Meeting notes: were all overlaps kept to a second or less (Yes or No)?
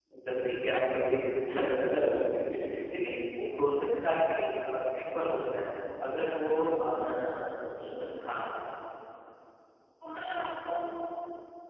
Yes